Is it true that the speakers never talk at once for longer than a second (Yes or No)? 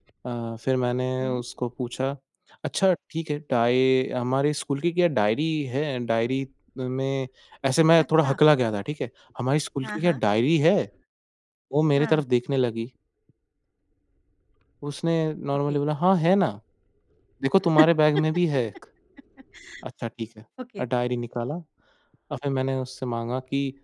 Yes